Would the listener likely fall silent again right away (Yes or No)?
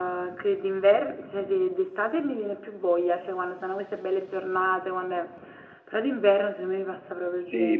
No